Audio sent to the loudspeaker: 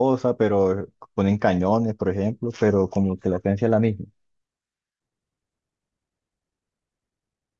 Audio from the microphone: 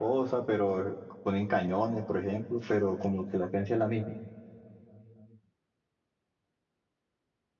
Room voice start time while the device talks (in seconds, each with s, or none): none